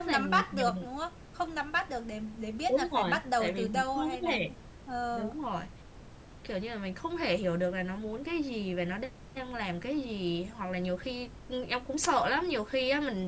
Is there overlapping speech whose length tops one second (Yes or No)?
Yes